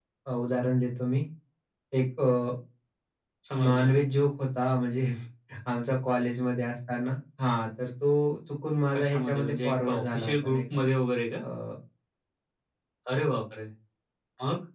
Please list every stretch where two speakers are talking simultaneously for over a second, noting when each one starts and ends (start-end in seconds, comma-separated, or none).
8.9-10.6